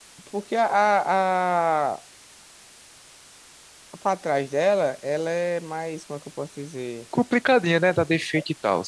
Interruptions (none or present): none